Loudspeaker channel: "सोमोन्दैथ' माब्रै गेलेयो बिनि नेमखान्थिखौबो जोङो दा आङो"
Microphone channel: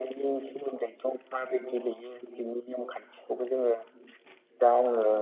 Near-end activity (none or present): none